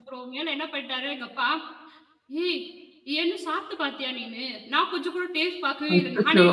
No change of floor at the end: Yes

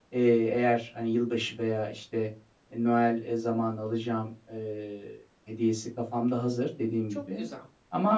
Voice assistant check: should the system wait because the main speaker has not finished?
Yes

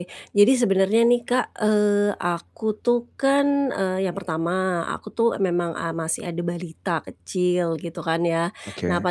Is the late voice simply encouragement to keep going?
Yes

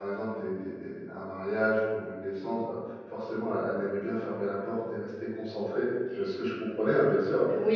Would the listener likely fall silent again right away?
No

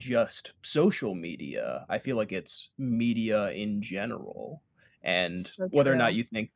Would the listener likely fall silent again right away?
Yes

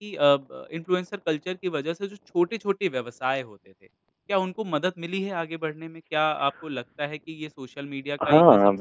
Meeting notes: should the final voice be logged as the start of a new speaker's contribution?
Yes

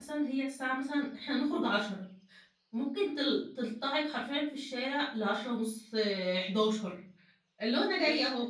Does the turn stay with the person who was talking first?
Yes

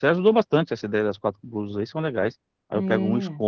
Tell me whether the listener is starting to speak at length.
No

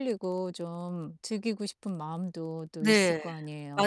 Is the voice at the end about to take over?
Yes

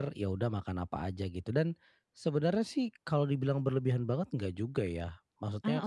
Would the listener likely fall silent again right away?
Yes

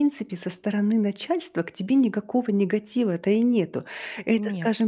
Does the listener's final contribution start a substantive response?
No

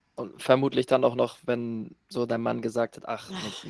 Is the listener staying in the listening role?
Yes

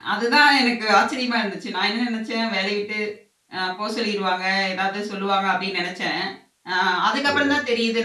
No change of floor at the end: Yes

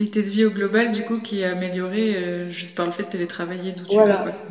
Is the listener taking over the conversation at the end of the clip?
Yes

